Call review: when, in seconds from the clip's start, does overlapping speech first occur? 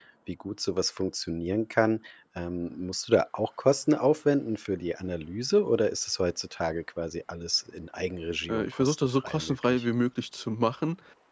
8 s

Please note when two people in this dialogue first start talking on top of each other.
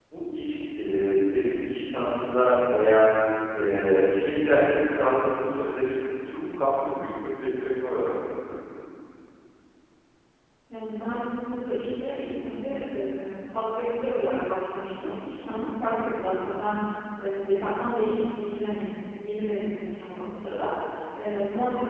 none

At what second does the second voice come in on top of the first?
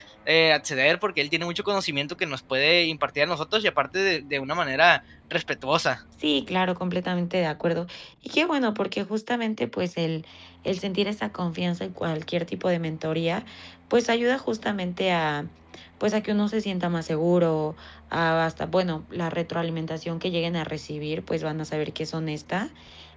none

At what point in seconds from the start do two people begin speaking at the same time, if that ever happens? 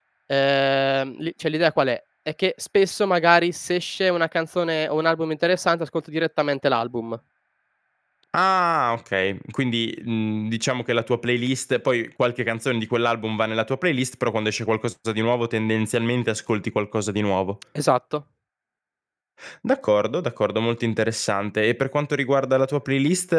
none

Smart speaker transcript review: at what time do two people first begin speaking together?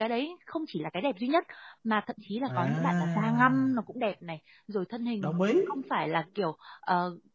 2 s

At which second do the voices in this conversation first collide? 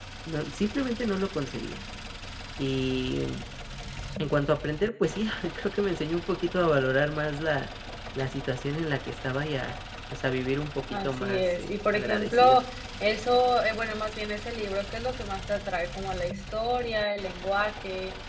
11 s

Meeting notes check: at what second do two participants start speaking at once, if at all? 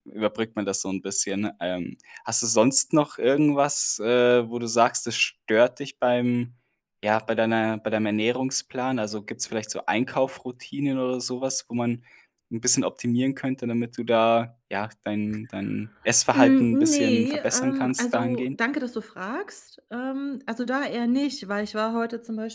16 s

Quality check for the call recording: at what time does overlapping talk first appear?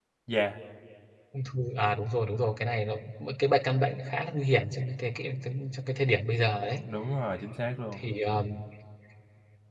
none

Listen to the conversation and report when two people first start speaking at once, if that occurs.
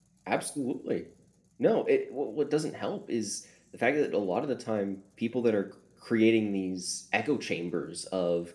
none

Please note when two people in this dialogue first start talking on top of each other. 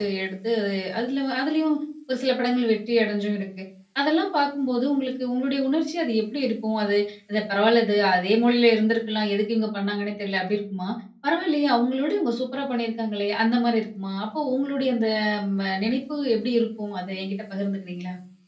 none

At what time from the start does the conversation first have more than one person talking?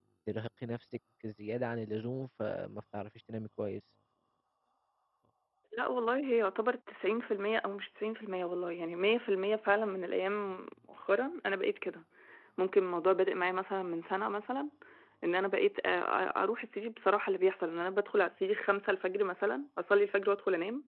none

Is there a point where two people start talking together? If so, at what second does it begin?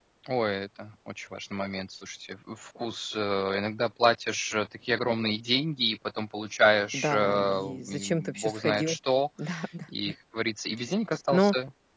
7 s

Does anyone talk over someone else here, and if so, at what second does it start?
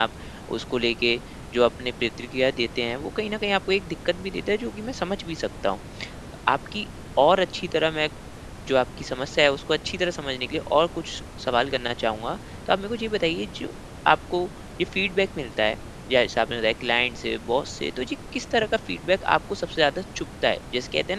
none

